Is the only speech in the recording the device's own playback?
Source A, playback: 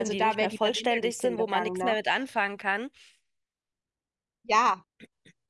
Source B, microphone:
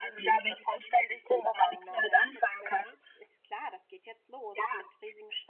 No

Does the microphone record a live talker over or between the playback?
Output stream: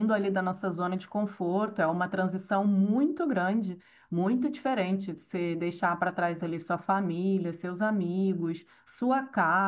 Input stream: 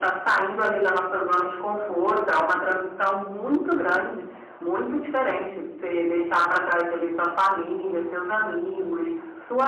No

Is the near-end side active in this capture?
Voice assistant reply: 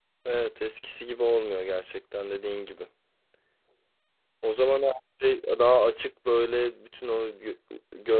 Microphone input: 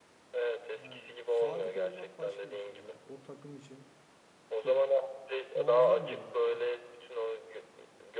Yes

